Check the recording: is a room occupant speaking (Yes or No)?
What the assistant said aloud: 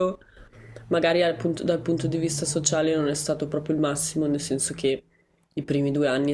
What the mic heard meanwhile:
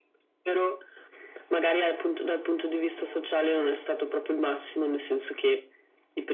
No